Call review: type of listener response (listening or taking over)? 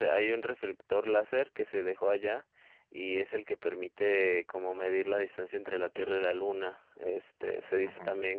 listening